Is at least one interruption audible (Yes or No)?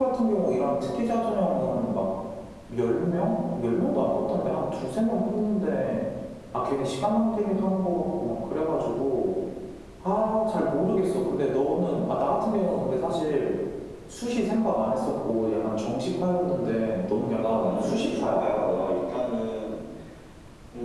Yes